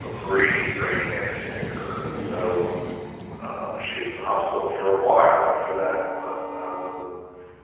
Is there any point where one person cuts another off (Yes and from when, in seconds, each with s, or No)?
No